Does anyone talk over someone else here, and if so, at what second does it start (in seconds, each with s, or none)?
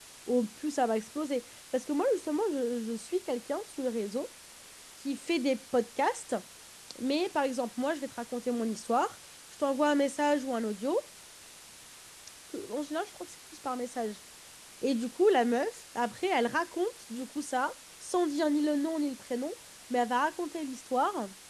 none